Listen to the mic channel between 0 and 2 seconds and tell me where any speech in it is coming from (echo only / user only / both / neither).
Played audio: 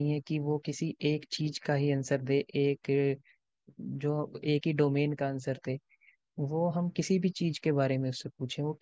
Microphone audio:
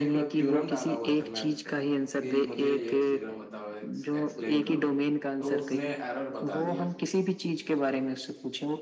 both